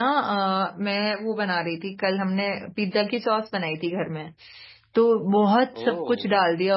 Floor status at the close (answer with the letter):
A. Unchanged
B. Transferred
A